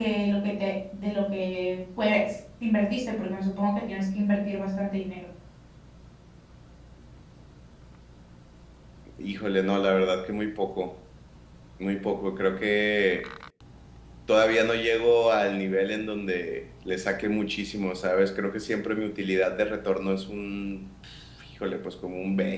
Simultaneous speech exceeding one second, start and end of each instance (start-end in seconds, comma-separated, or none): none